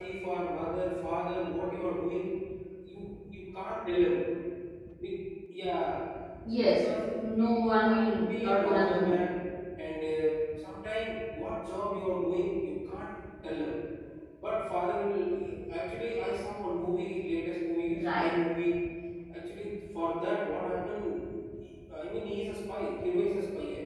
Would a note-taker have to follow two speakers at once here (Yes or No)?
Yes